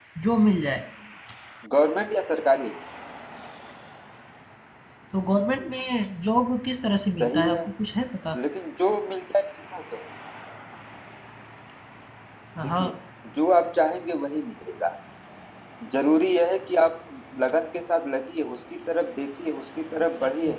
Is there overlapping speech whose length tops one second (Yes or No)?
No